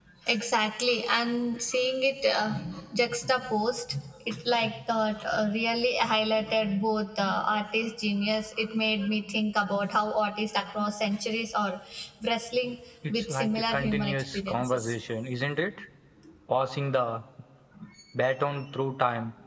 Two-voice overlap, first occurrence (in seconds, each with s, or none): 13.1 s